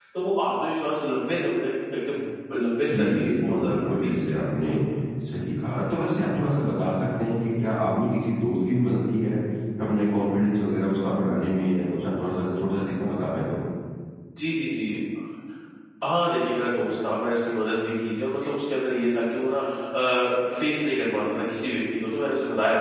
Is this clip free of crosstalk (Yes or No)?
No